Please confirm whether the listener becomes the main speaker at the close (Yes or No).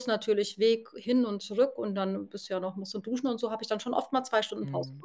Yes